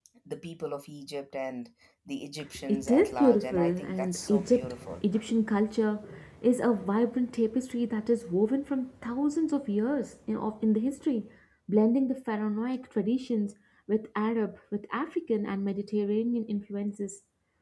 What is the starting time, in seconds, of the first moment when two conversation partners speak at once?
2.7 s

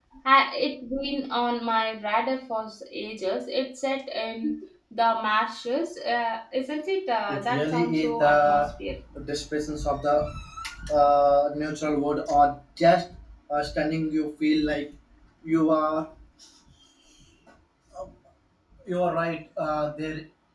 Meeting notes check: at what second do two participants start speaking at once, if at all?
7.3 s

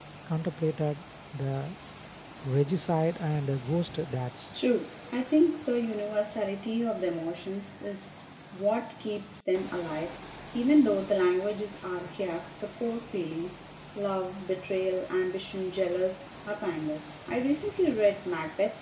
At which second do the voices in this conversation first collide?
none

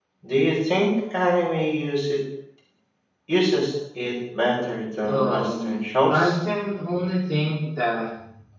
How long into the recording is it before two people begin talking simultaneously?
5.1 s

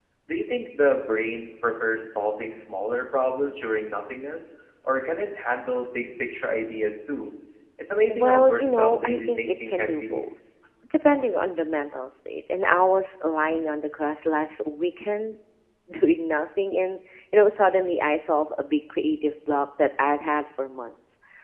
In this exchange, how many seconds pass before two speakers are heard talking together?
8.1 s

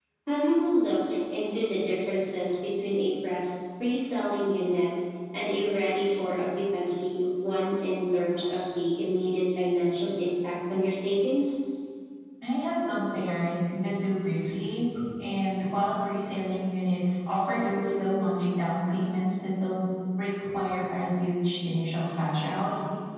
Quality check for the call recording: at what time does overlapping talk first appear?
none

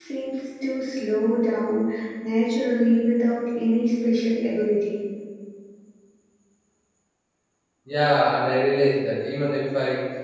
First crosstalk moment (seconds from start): none

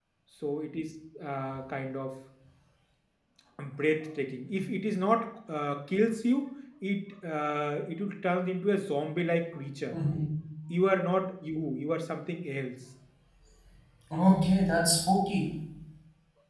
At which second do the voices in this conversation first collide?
none

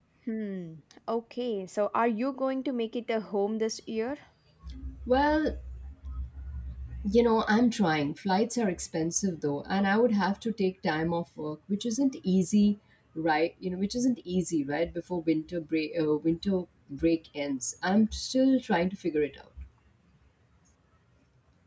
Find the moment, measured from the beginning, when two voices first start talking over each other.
none

